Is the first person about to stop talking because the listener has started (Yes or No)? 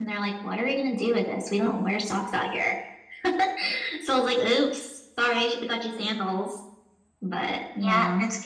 Yes